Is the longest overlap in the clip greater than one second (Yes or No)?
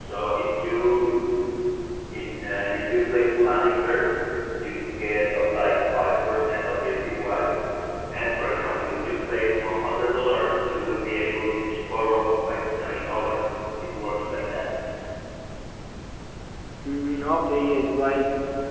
No